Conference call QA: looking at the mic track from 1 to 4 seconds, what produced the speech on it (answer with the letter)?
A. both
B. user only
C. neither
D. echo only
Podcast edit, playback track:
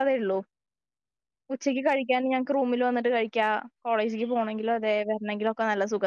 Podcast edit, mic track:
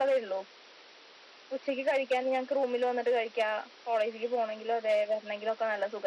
D